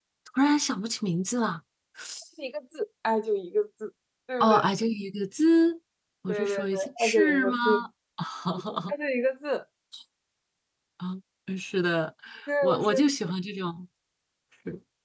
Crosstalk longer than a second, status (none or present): present